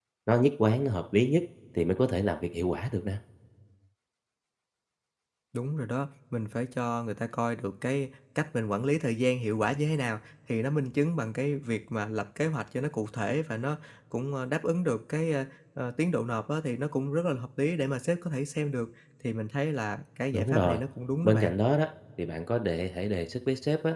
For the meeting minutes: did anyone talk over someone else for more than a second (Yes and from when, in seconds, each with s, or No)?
No